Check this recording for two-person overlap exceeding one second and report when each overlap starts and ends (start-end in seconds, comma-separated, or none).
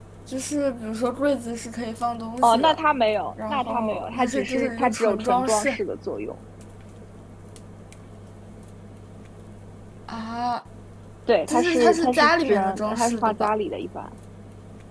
3.5-5.8, 11.5-13.5